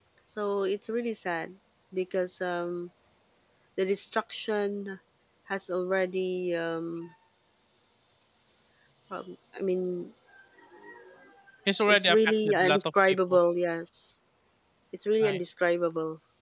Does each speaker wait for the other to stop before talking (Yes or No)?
No